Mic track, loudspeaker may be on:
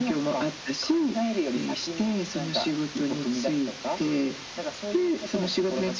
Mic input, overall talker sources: echo only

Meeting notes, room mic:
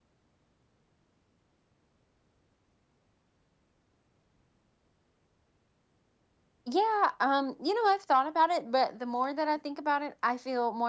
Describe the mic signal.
user only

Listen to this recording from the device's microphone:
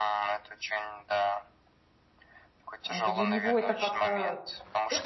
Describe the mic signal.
both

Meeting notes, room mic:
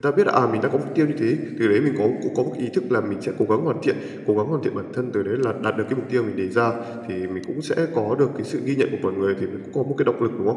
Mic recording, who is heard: user only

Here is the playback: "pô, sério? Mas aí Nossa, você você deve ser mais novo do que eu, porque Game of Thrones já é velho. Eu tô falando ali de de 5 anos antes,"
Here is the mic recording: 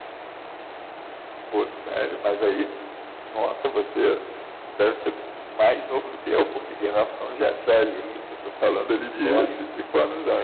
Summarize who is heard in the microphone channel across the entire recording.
both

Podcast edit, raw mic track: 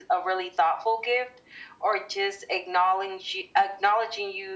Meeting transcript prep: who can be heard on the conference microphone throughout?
echo only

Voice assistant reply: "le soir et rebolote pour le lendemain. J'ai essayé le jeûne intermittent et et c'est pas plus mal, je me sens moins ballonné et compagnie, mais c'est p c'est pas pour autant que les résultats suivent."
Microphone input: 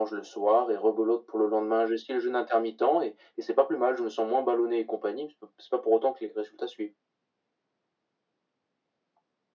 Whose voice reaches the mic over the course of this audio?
echo only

